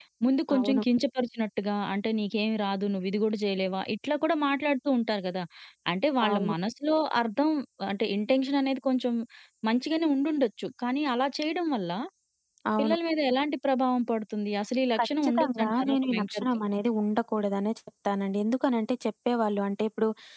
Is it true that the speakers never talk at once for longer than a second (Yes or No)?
No